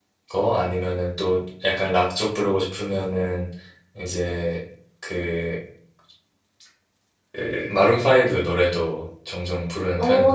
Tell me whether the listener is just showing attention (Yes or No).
No